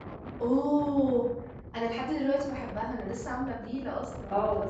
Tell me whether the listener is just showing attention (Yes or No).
No